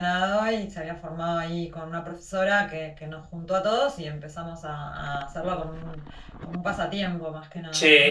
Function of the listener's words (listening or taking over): taking over